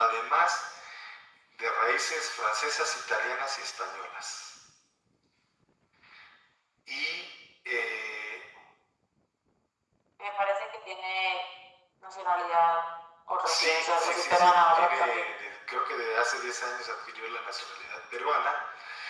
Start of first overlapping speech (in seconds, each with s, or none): 13.5 s